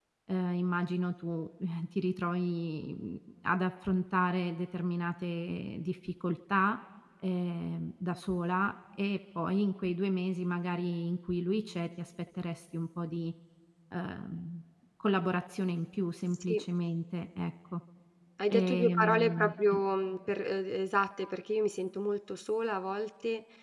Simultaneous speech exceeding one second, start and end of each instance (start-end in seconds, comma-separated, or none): 18.5-19.8